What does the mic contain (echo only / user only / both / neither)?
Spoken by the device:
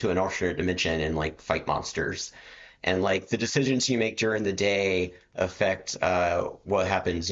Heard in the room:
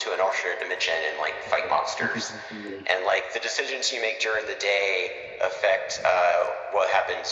both